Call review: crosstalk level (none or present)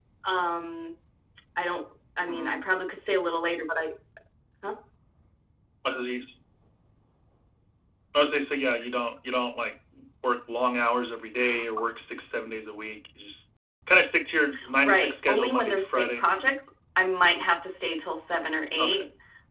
present